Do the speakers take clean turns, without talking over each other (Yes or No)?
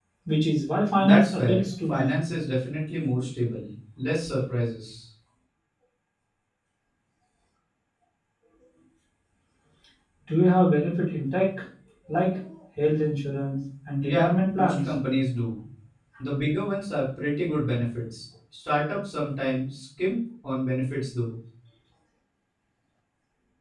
No